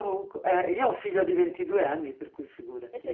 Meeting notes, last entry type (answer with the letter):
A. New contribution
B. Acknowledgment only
A